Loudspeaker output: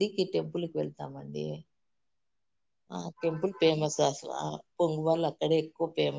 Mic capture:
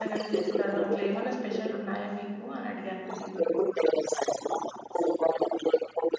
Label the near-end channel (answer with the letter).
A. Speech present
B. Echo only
A